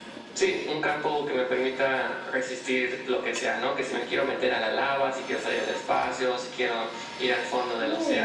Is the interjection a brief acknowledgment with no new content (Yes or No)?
No